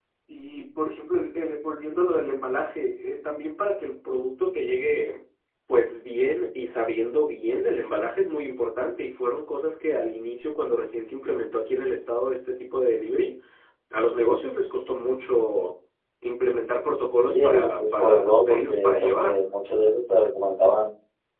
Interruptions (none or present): present